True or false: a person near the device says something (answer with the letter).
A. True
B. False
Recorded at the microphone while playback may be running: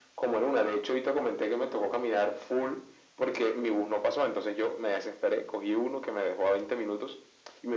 B